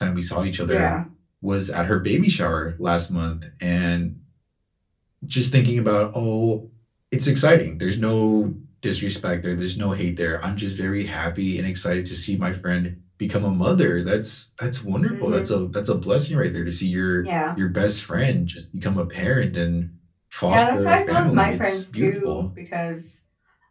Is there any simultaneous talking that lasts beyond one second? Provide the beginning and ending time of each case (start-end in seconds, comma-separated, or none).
20.5-22.4